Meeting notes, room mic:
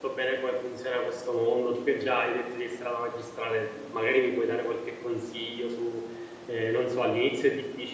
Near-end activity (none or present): present